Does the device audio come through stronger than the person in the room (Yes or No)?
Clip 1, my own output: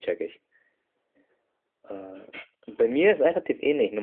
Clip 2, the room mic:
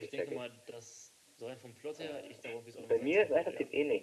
Yes